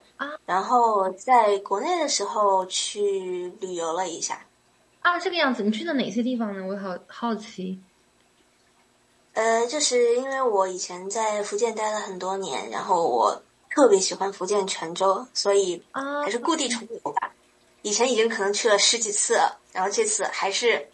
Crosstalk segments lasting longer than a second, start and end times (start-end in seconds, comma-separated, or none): none